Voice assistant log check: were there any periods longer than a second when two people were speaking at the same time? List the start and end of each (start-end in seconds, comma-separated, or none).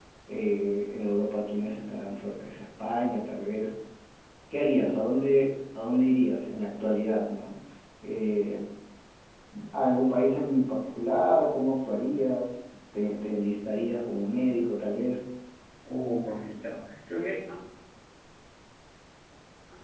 none